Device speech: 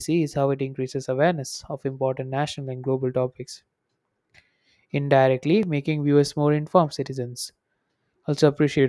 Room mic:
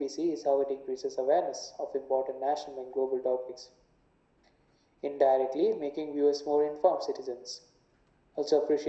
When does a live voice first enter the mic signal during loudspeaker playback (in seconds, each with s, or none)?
none